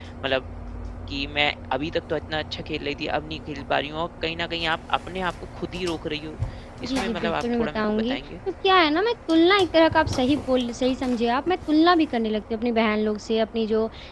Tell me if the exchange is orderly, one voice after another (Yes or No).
No